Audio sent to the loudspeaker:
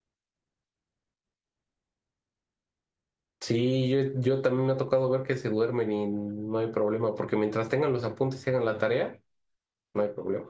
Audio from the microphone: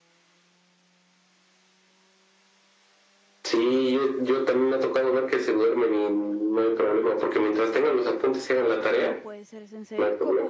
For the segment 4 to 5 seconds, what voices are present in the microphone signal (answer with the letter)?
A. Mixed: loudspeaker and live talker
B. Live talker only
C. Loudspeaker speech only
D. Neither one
C